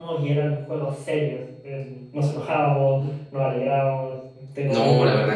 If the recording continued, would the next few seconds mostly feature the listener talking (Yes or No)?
Yes